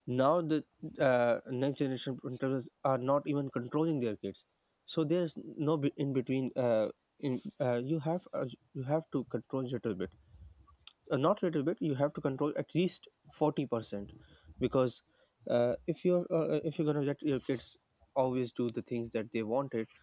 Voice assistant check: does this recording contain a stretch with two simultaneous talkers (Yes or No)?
No